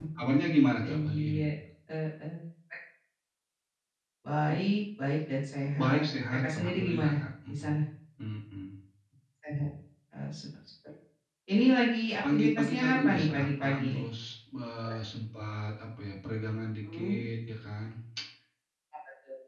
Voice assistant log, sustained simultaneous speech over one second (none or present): present